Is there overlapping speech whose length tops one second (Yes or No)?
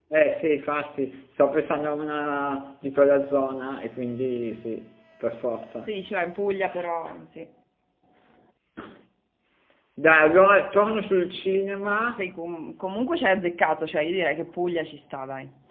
No